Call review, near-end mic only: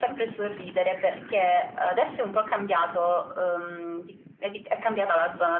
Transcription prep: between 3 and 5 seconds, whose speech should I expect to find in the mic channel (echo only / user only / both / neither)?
echo only